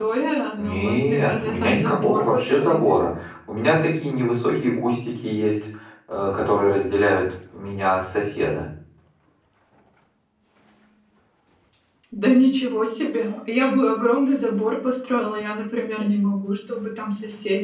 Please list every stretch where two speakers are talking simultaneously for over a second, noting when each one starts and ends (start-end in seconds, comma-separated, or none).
0.6-3.0